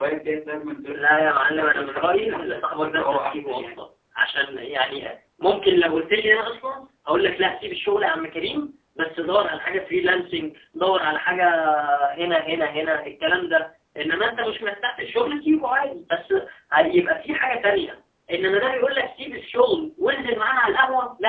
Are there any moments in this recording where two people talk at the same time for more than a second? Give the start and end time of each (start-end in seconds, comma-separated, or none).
0.9-3.7